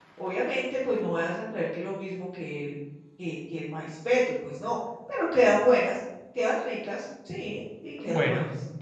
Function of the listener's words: taking over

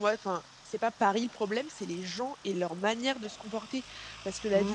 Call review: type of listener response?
listening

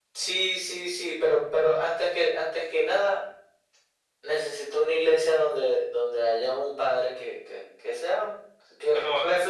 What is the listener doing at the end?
listening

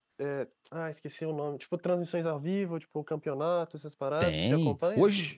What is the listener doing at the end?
taking over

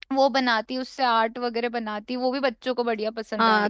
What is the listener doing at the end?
taking over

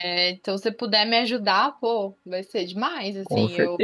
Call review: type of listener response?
taking over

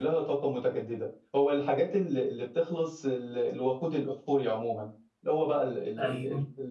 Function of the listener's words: listening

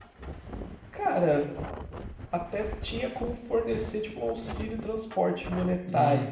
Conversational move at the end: taking over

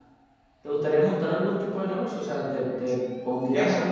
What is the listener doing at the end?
taking over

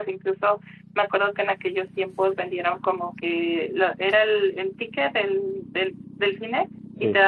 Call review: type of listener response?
listening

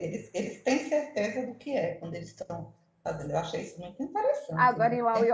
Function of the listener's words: taking over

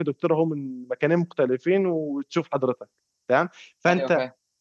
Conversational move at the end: listening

